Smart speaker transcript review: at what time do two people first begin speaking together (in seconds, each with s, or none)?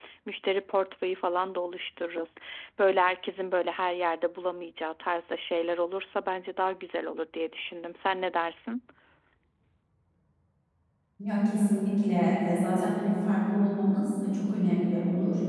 none